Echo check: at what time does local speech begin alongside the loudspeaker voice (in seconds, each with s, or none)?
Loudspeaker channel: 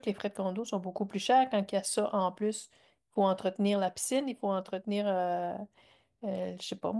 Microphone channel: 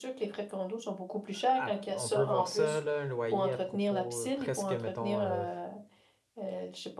1.3 s